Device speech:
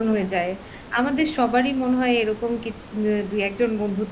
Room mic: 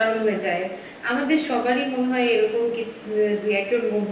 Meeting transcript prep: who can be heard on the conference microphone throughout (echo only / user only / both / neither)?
echo only